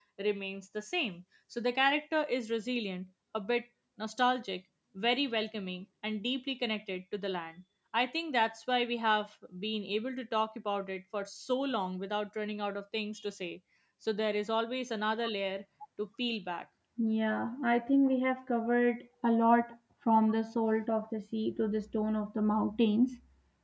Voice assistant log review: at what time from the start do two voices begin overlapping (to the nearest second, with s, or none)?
none